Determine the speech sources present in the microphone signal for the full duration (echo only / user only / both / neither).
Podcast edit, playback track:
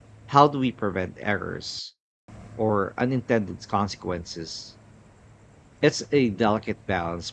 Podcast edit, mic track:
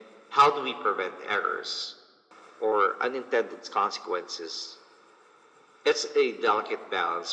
echo only